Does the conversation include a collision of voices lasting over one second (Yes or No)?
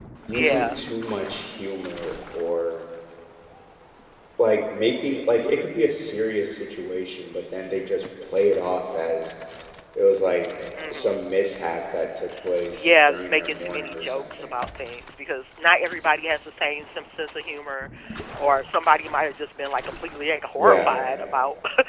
Yes